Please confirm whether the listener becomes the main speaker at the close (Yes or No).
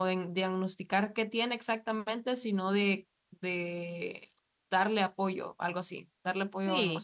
Yes